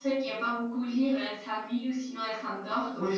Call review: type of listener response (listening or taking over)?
taking over